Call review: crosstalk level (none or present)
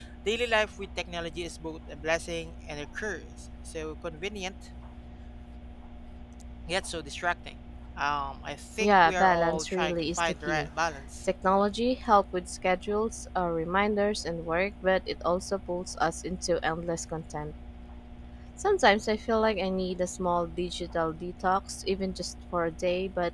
present